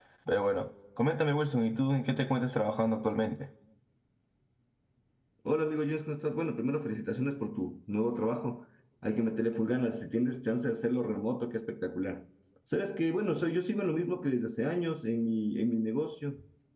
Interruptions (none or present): none